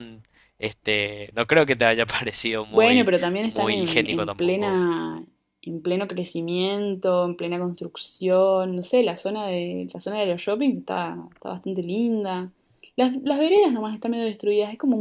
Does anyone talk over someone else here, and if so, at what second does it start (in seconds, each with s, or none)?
2.7 s